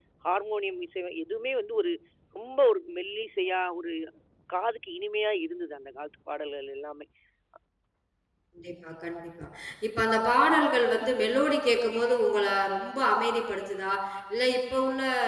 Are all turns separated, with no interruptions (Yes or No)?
Yes